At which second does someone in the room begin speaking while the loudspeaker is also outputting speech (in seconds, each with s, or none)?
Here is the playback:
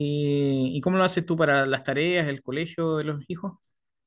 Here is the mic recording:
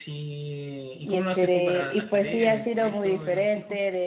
0.9 s